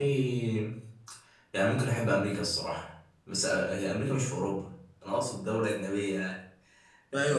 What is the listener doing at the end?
taking over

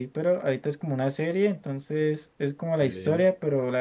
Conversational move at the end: listening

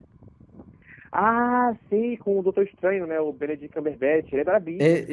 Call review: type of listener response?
taking over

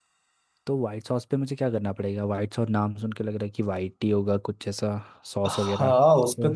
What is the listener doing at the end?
taking over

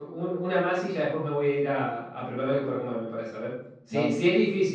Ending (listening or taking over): listening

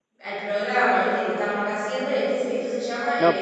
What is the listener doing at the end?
taking over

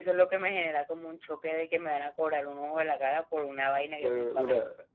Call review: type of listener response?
taking over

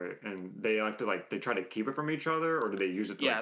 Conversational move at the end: taking over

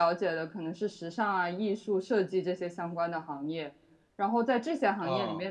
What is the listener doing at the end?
listening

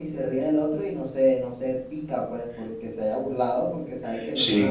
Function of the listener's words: listening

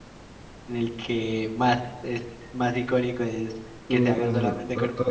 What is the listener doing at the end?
taking over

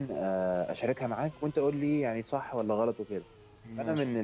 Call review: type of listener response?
listening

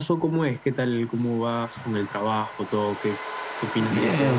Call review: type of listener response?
taking over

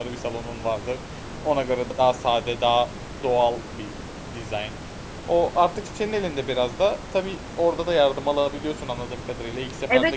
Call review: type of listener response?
taking over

